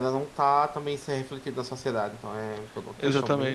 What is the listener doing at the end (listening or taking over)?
taking over